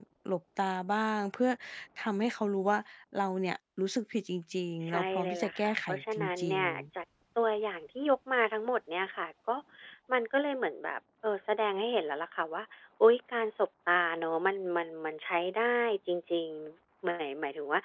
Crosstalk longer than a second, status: present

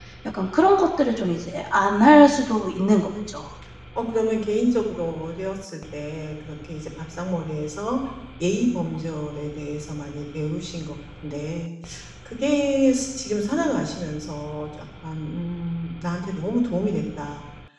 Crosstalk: none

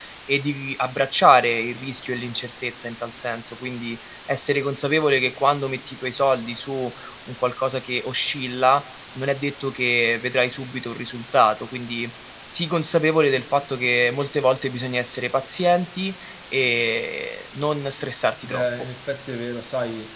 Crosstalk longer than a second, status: none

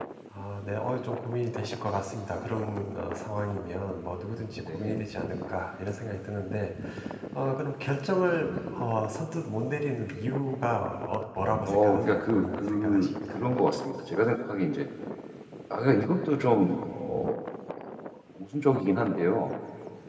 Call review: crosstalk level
present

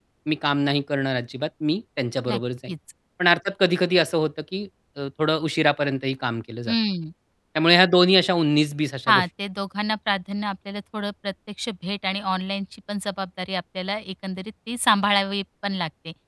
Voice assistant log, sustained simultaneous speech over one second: none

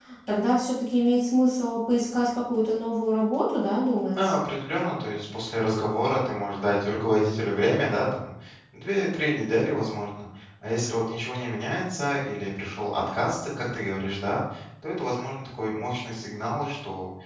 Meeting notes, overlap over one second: none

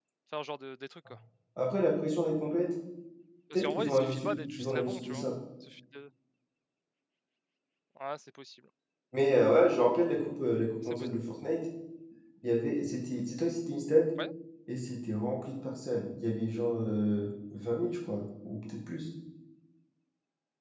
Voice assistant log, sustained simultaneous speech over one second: present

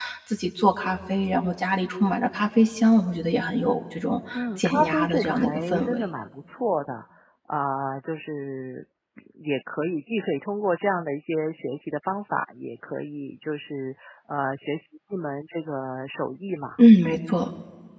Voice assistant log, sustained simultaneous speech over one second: present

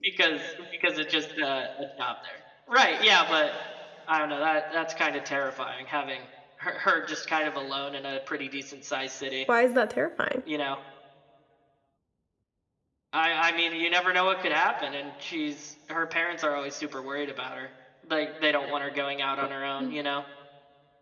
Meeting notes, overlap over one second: none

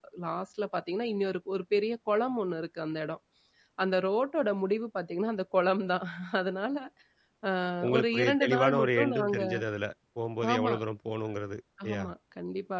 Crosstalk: present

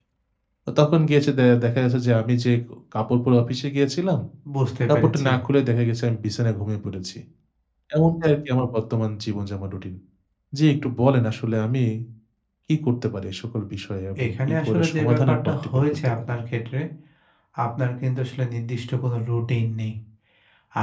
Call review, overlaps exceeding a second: present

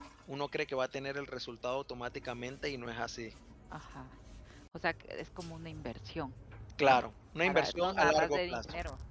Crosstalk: present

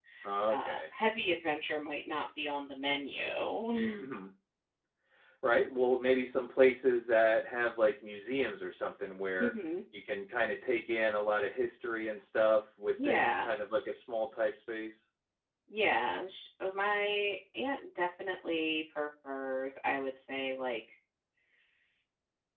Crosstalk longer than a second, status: none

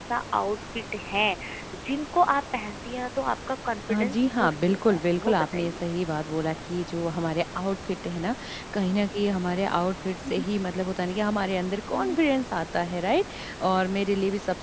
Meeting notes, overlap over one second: present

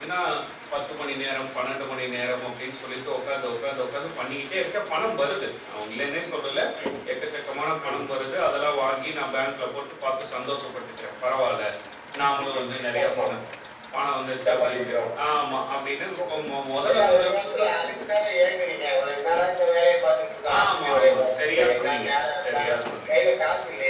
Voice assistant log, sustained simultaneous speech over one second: present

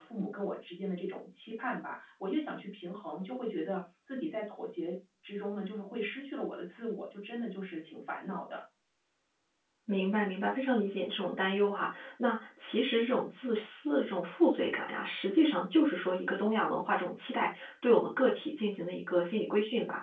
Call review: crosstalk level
none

